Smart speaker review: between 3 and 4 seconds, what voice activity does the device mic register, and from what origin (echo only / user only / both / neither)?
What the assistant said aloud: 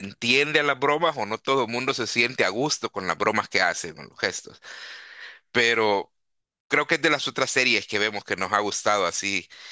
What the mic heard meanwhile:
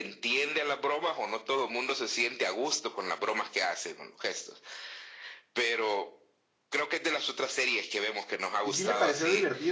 echo only